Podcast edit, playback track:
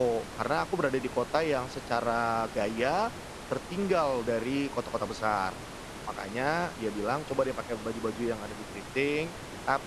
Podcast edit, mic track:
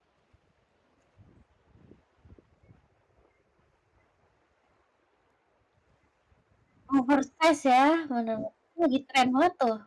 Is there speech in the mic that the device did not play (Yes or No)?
Yes